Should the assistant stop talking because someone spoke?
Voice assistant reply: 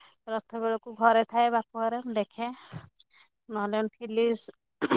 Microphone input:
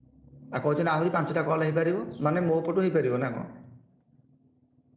Yes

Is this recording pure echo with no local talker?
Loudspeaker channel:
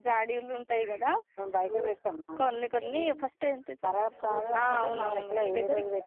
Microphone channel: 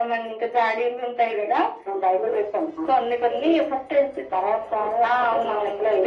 Yes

